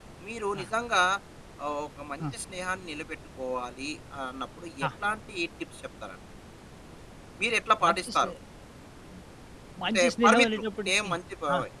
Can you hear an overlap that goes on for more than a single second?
Yes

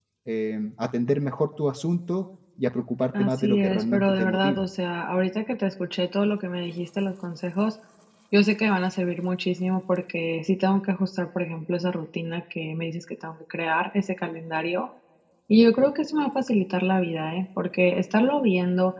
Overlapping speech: Yes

